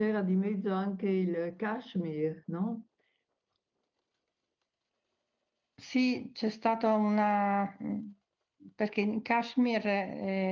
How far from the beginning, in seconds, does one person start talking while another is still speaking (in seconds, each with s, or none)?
none